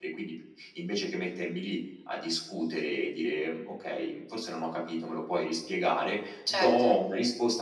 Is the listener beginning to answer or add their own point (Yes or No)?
No